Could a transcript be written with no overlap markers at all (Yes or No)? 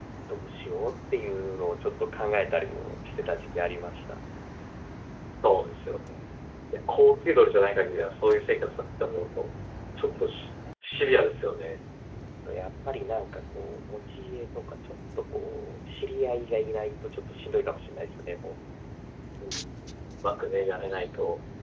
Yes